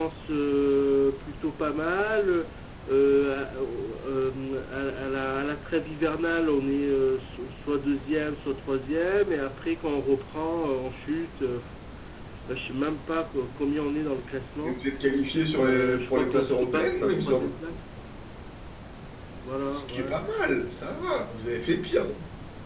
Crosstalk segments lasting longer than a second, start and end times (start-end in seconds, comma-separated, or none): 15.6-17.5